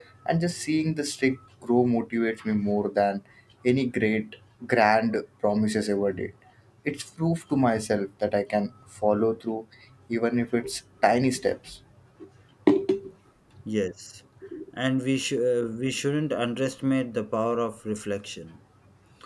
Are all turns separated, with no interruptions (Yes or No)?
Yes